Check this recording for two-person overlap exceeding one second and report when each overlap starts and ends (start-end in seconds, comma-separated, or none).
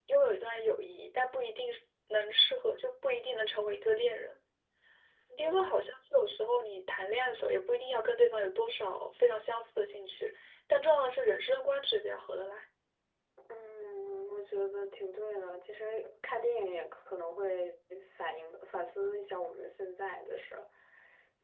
none